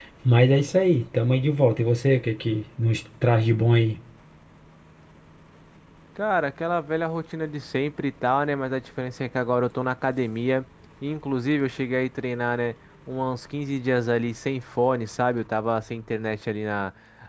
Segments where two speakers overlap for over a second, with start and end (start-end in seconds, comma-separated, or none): none